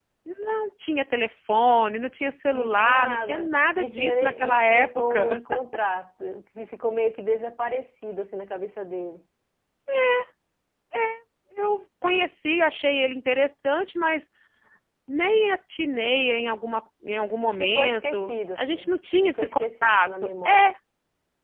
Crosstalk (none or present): present